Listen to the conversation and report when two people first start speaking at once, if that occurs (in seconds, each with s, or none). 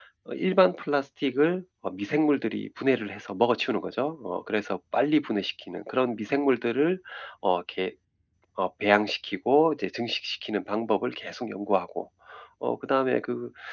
none